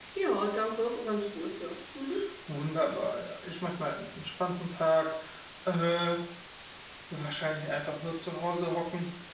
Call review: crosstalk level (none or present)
none